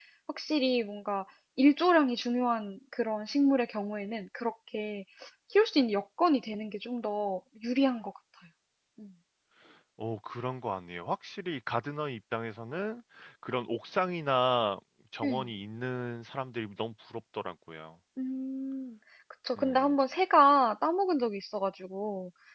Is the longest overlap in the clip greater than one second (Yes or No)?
No